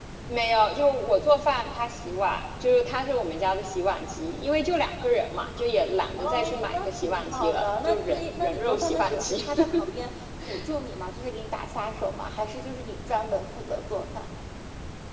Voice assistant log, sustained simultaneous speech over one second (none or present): present